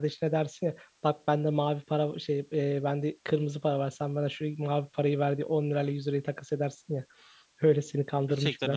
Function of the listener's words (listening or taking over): taking over